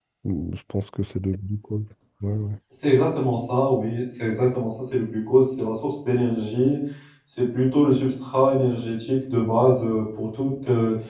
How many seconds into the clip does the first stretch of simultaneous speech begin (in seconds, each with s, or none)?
none